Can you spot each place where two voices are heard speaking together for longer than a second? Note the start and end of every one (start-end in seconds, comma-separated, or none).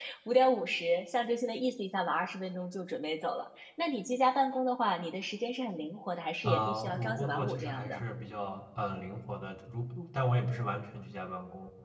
6.4-8.0